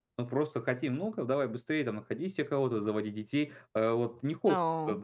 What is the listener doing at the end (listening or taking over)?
listening